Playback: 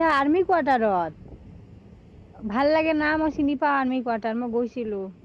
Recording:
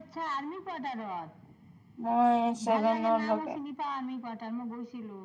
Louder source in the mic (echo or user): user